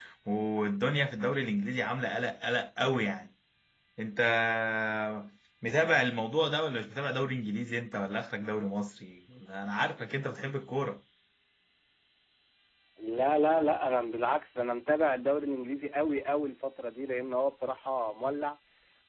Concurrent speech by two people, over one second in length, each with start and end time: none

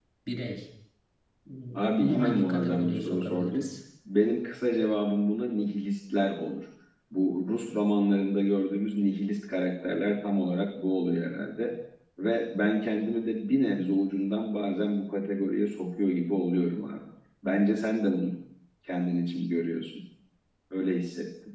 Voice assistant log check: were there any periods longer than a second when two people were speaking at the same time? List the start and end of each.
2.0-3.6

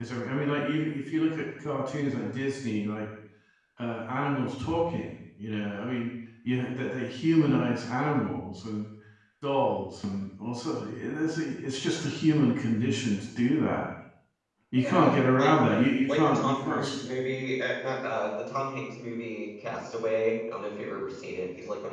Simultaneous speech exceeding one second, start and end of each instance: 14.8-17.1

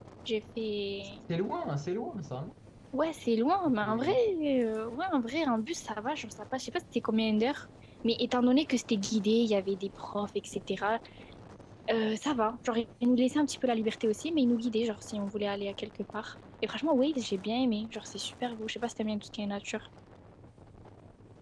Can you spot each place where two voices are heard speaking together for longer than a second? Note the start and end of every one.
none

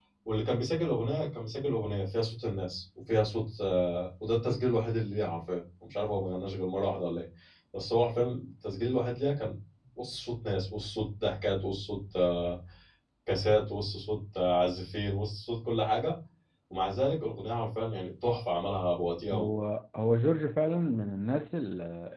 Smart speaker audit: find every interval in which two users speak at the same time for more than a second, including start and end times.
none

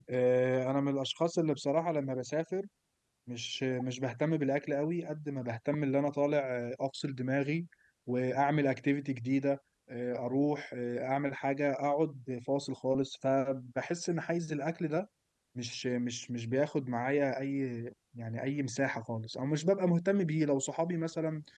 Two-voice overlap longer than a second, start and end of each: none

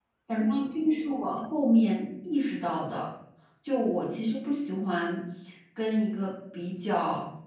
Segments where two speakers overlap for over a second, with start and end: none

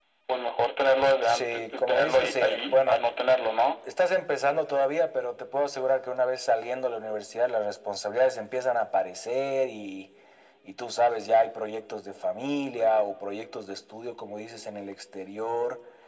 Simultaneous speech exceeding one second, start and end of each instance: 1.2-3.0

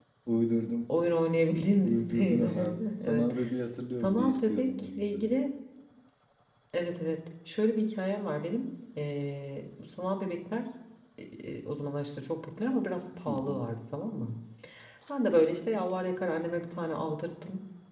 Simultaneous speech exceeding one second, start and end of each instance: 1.8-3.3, 4.0-5.3

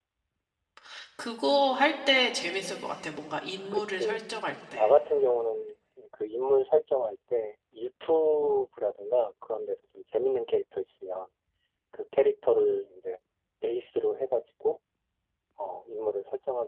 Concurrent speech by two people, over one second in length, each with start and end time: none

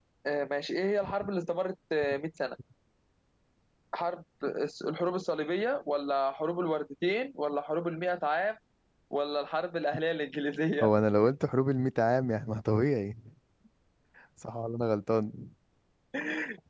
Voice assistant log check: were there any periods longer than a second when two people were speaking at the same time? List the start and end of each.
none

